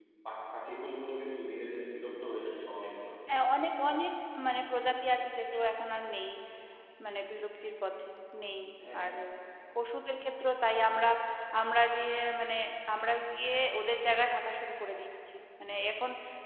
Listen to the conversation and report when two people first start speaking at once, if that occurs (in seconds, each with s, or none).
none